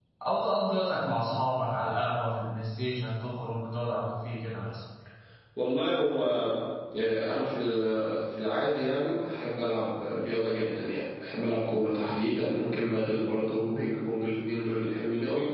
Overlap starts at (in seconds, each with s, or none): none